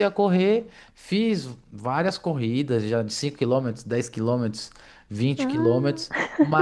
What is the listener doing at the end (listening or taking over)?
listening